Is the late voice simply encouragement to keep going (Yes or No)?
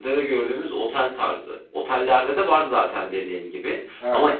Yes